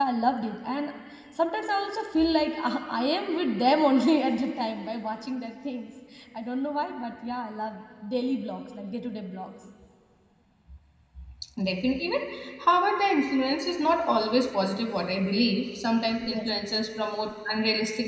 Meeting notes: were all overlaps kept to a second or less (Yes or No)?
Yes